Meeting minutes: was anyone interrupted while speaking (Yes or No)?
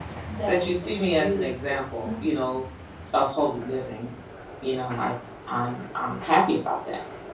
Yes